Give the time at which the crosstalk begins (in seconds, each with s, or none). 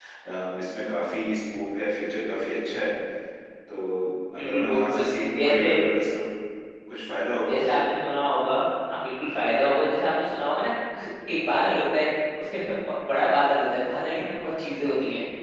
4.4 s